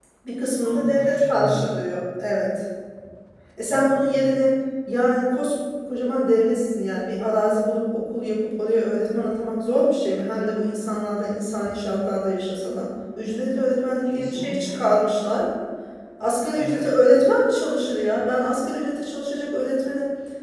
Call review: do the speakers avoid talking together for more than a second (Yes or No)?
No